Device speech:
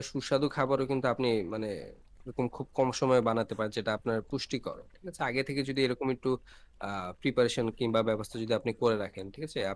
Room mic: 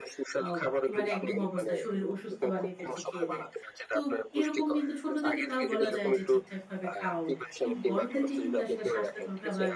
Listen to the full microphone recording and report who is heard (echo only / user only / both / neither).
both